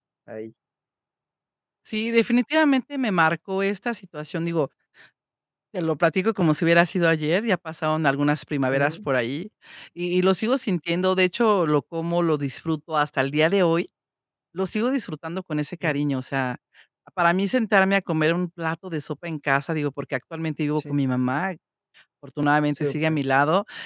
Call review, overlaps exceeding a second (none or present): none